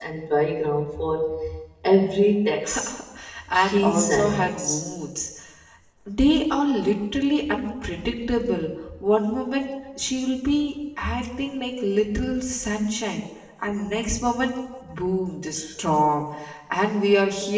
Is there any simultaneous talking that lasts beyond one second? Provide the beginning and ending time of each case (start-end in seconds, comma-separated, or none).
3.6-4.8